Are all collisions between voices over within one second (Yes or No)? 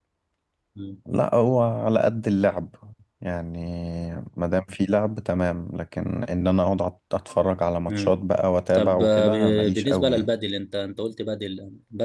No